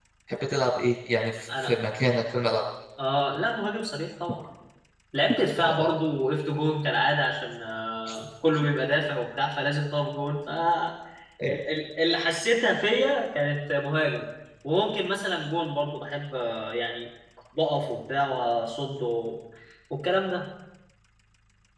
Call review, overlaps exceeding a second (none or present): none